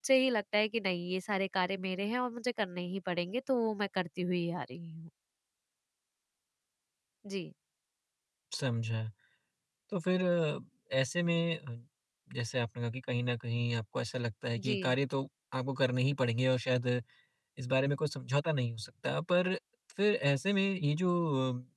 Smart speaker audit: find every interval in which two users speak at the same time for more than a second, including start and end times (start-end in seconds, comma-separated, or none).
none